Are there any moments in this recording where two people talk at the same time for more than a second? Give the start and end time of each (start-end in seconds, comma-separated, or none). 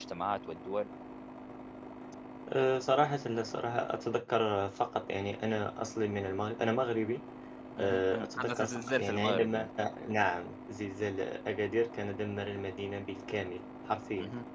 7.8-9.7